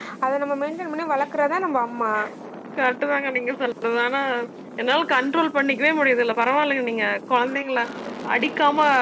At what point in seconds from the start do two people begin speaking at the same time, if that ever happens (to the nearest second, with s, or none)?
none